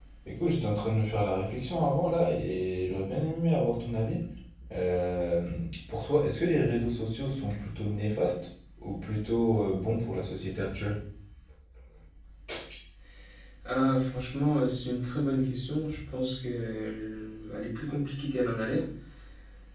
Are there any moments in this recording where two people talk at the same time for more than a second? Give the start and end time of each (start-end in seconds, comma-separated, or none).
none